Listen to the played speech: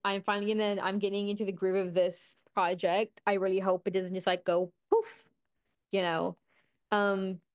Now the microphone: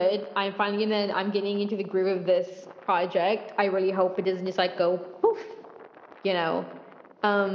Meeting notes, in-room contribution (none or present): none